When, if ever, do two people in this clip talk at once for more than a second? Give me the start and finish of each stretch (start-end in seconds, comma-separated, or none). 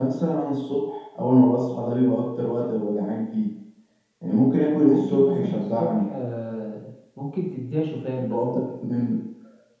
4.9-6.1